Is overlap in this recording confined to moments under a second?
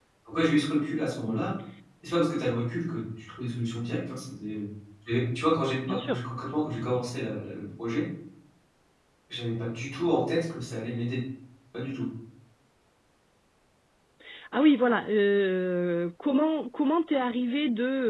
Yes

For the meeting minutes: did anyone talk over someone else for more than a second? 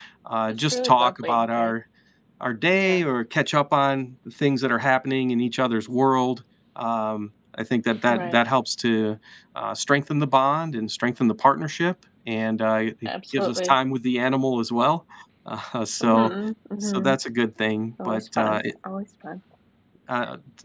Yes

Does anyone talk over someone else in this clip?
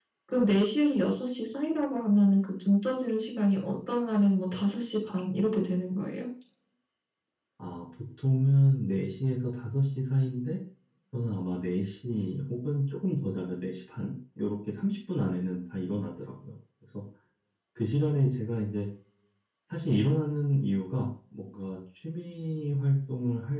No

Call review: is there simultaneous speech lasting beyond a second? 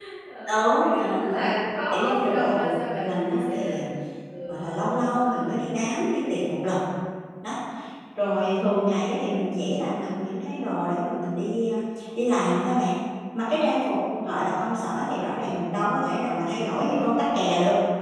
Yes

